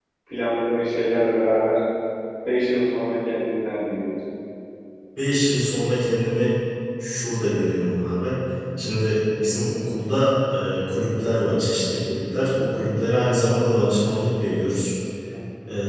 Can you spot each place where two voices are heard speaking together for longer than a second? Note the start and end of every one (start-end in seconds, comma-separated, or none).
none